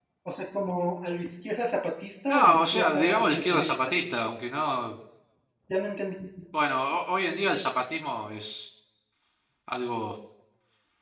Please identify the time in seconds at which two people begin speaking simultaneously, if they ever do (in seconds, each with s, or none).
2.3 s